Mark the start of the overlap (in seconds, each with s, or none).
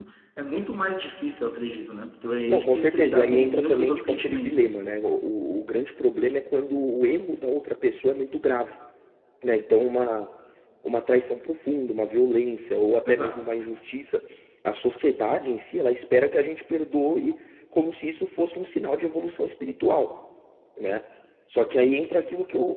2.5 s